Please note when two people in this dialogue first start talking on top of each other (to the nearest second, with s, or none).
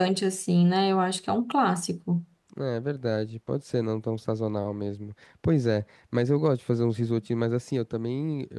none